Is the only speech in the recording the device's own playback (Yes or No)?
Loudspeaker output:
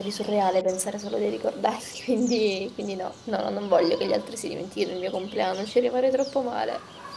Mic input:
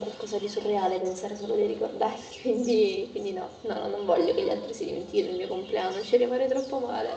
Yes